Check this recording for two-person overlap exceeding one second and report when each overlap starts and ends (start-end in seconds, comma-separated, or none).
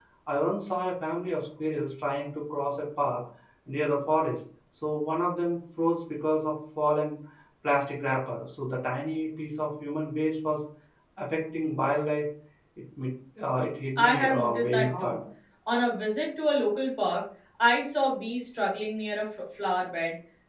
14.0-15.2